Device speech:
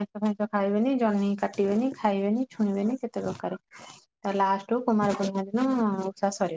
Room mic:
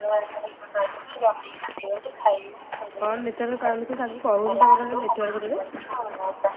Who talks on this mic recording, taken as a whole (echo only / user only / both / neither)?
both